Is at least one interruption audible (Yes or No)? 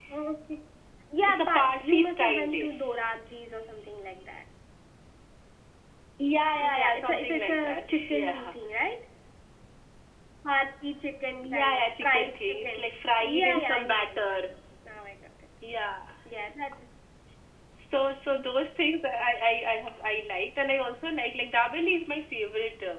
Yes